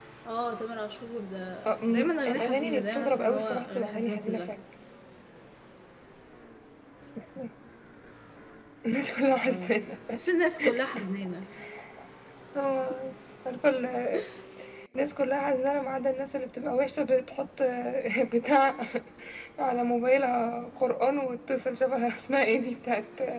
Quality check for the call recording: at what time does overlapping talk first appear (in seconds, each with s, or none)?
1.9 s